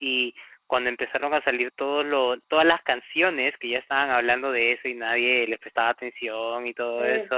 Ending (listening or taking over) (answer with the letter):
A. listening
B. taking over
B